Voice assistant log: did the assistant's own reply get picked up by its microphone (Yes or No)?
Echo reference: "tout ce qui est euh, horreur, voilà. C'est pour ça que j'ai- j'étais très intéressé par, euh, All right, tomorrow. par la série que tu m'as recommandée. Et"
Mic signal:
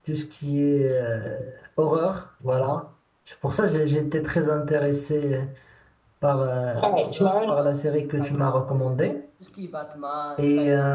Yes